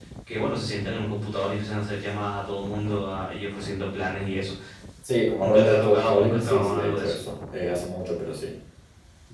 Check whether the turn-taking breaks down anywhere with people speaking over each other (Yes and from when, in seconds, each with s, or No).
Yes, from 5.4 s